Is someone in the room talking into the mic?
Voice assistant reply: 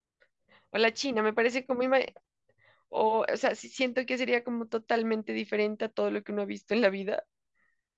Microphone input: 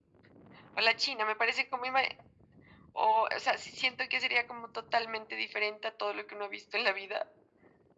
No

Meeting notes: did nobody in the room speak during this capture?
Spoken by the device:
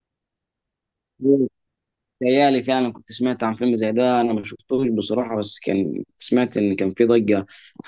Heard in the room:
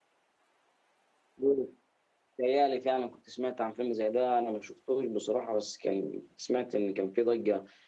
Yes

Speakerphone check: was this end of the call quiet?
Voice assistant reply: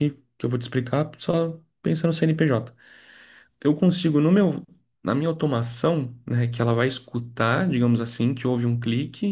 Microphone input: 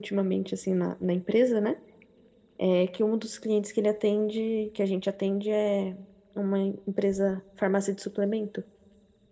No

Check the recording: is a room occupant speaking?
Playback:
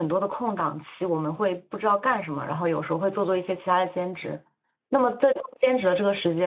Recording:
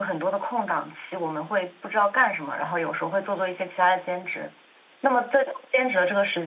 No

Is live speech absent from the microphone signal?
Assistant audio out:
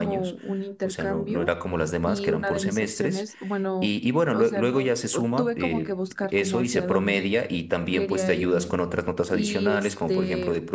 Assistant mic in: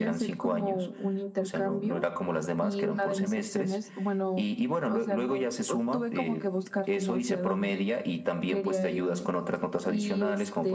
Yes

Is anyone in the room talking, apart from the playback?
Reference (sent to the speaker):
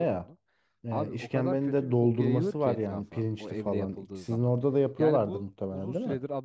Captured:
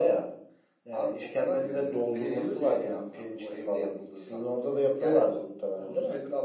Yes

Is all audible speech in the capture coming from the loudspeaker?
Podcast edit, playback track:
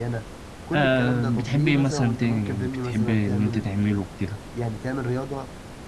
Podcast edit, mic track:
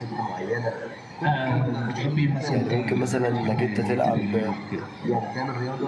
No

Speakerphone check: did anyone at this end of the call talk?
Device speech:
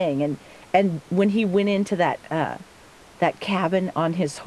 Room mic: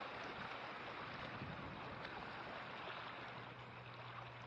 No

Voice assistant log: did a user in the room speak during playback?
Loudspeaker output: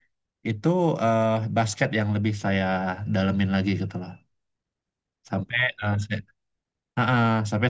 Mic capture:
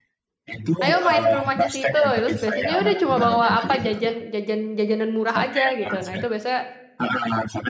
Yes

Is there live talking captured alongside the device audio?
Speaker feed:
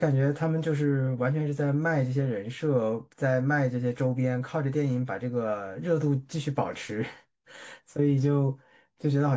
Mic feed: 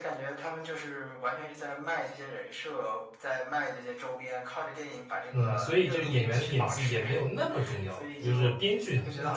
Yes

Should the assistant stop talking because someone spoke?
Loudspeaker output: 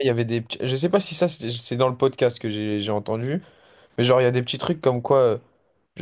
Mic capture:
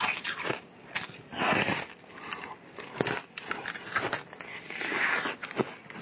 No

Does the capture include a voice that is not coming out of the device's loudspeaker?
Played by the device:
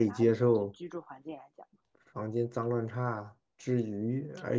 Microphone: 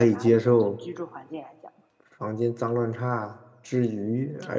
No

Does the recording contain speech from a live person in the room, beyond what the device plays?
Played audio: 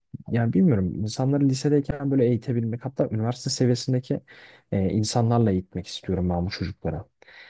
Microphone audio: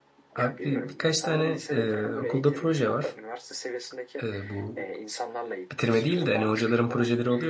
Yes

